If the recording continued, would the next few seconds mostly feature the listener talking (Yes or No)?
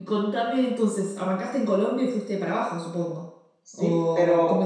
Yes